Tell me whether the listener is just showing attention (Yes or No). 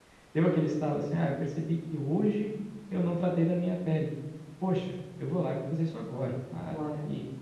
Yes